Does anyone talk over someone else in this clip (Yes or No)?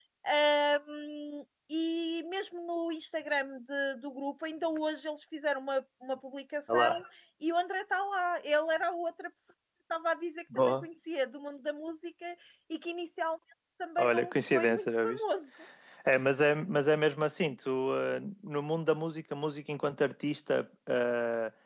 Yes